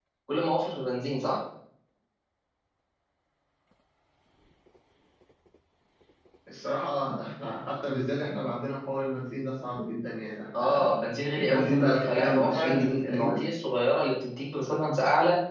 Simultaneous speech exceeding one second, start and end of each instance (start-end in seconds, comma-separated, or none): 11.4-13.4